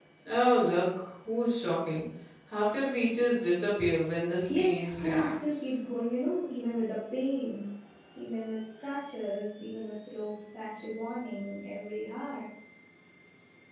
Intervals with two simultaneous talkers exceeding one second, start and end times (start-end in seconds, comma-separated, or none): 4.5-5.8